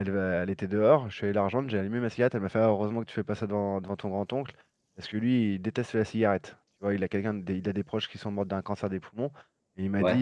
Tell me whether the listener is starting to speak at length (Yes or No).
No